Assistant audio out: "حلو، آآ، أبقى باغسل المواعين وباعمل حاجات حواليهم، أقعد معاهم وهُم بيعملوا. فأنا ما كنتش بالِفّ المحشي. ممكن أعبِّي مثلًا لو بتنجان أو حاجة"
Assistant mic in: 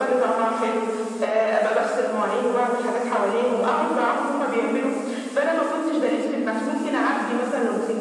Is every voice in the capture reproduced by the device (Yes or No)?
Yes